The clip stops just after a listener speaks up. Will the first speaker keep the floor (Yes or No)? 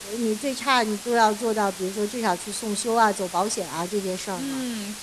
No